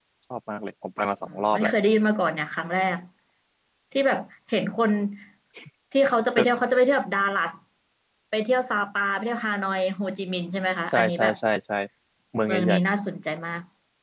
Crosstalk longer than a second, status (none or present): none